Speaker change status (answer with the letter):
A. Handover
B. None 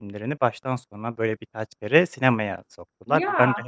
B